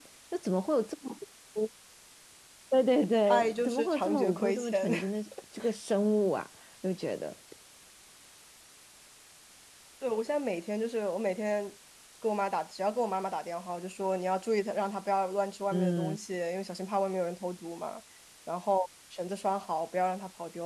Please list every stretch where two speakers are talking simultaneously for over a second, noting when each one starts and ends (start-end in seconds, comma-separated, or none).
3.3-4.9